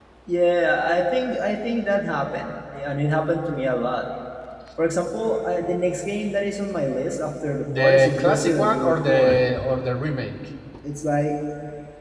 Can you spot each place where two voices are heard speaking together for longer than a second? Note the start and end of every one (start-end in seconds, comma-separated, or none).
7.8-9.3